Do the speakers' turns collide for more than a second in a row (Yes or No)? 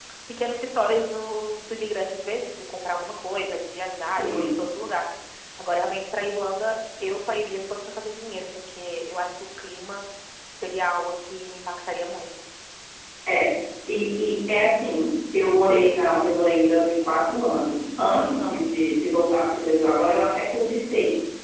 No